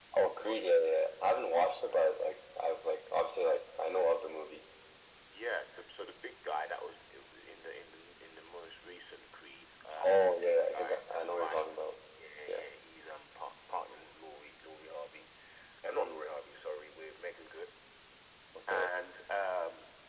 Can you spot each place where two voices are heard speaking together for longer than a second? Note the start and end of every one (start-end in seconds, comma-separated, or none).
10.0-11.8